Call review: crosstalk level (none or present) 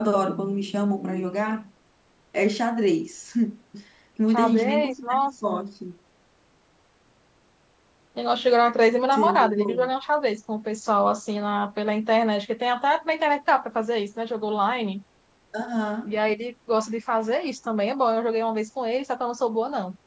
present